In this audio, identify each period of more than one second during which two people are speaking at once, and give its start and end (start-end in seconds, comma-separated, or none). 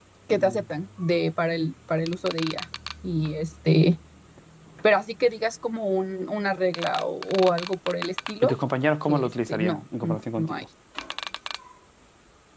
9.1-10.6